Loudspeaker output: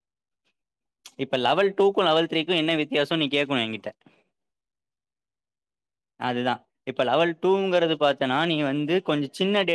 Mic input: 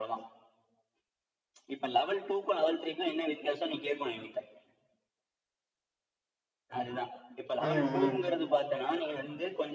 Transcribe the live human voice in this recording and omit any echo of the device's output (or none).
ம்